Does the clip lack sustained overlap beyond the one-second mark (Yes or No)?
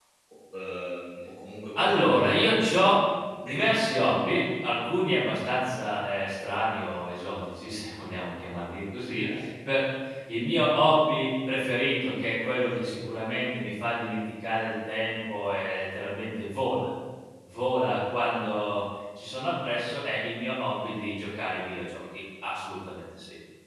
No